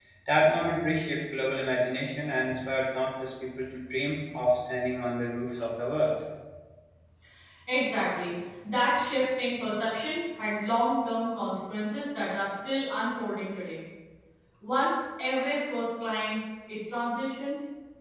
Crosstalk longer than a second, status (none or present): none